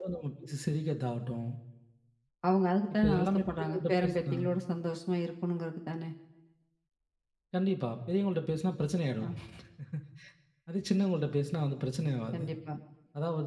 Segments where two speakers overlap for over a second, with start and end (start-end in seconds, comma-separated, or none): 2.9-4.3